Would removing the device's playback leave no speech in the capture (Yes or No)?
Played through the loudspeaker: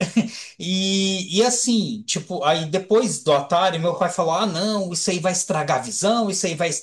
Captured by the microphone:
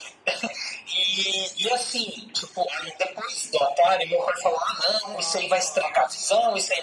No